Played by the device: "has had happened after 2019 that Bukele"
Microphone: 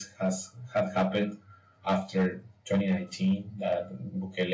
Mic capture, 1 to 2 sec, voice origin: echo only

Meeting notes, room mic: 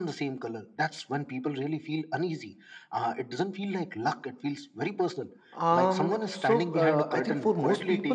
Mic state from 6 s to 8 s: both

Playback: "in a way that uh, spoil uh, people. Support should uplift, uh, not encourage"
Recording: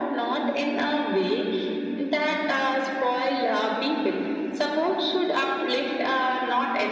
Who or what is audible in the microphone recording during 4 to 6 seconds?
echo only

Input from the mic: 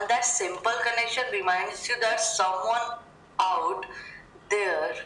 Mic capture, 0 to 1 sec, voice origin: echo only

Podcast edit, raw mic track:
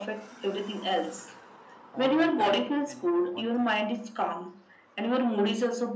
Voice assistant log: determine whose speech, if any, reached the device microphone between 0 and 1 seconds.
echo only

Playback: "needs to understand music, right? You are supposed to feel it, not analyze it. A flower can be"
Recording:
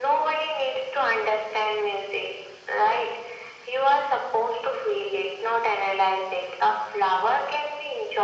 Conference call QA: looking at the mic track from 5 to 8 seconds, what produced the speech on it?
echo only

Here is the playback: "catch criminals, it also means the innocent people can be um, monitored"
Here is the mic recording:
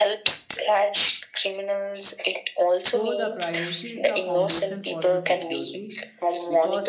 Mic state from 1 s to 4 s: both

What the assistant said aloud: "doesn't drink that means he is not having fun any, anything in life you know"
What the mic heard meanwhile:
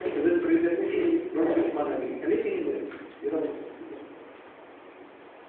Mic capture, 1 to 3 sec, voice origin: echo only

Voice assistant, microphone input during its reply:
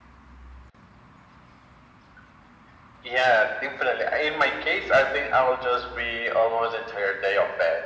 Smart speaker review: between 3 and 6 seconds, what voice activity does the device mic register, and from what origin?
echo only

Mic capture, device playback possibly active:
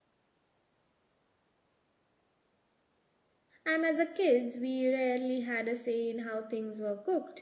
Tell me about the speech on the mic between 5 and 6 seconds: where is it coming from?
user only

